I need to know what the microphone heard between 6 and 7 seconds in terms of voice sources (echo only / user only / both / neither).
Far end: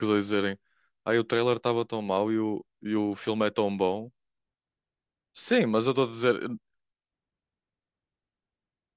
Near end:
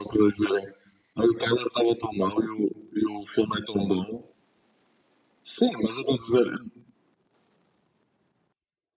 echo only